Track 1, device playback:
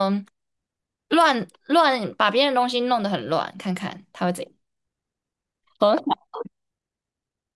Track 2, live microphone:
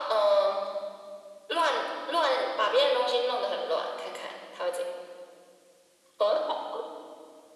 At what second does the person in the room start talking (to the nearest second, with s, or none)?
none